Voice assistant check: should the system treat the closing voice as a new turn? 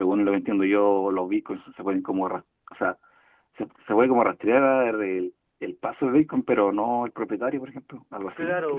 Yes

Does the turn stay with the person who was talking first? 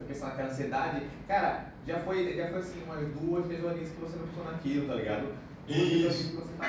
Yes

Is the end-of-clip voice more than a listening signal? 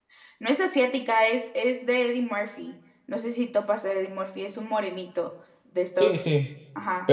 Yes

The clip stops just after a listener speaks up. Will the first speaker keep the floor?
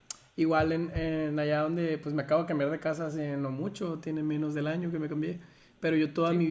Yes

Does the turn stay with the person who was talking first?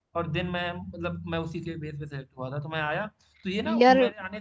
Yes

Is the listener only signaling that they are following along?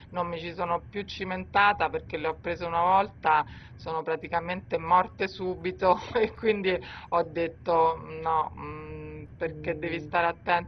Yes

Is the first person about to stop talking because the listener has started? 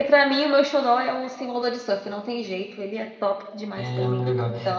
Yes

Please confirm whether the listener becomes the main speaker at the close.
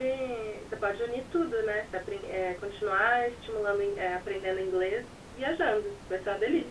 Yes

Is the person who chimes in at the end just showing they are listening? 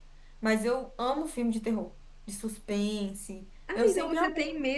No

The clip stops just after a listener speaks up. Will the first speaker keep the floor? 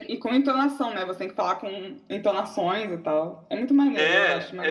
No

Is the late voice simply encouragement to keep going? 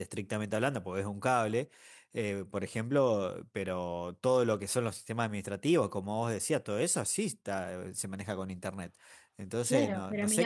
No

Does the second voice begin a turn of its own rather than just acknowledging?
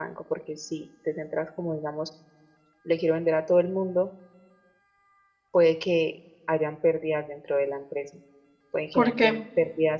No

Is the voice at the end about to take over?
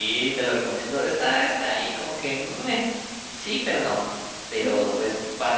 No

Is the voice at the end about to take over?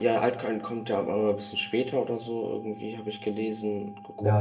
Yes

